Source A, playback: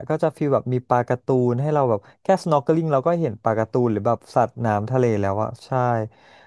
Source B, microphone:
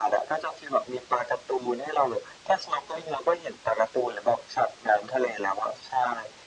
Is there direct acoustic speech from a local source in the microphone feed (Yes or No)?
No